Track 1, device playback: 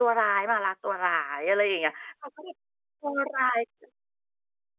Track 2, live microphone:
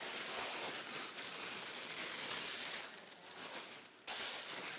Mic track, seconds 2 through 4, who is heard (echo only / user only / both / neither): neither